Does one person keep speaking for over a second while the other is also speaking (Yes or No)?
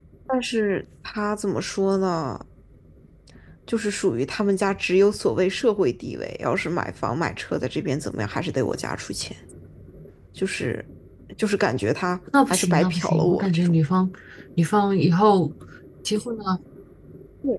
Yes